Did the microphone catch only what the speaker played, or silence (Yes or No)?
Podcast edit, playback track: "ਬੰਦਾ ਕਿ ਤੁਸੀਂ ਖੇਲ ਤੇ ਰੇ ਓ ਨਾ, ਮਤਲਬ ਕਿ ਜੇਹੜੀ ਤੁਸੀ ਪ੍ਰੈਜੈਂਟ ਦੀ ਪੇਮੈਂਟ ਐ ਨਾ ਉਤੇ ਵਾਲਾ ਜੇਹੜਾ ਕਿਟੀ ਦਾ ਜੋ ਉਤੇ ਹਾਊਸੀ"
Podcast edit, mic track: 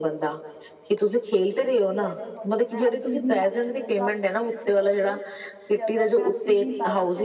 No